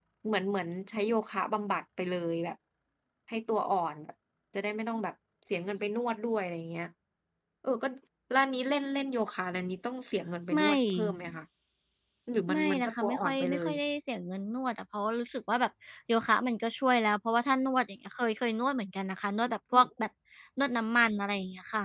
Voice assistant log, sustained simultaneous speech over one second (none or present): present